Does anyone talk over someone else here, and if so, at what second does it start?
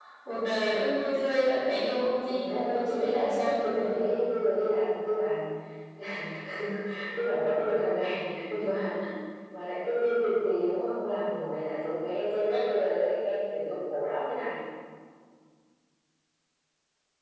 2 s

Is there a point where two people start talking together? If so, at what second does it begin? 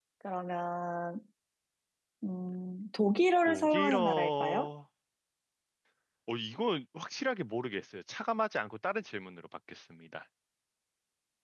3 s

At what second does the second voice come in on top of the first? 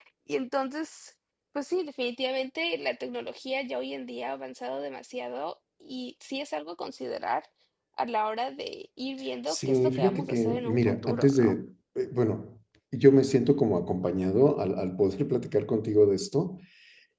9 s

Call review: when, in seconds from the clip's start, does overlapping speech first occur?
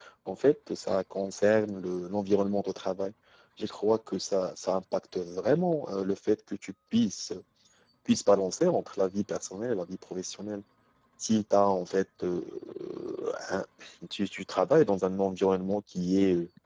none

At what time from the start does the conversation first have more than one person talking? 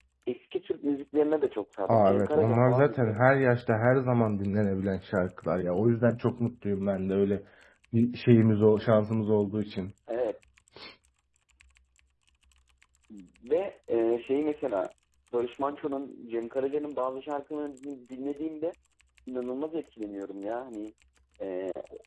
2 s

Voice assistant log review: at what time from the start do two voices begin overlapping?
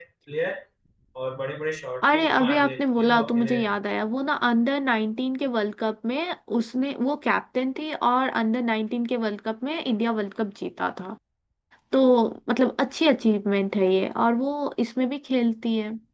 2 s

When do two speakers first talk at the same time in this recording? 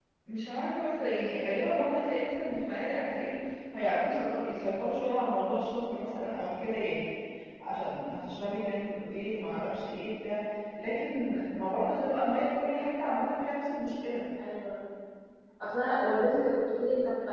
none

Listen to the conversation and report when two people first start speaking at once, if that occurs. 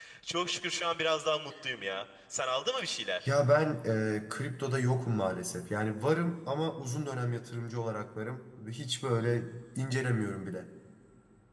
none

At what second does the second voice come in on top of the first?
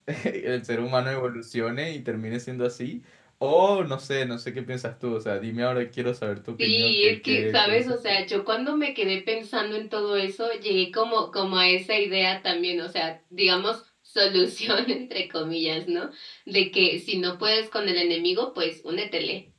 7 s

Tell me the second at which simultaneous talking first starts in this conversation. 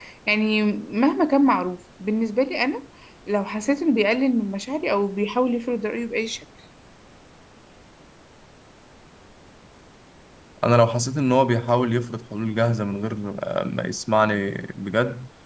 none

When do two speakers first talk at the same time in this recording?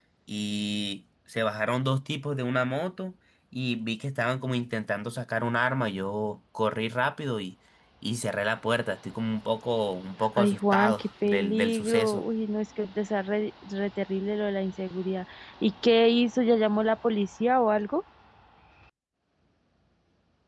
10 s

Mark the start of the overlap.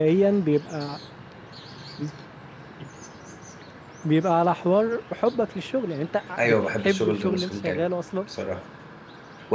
6 s

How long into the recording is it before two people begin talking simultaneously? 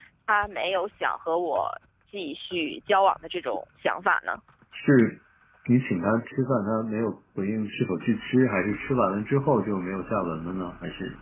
none

